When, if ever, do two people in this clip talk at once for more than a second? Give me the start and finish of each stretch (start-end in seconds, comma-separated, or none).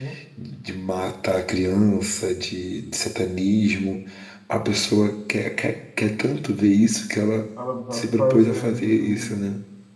7.9-9.4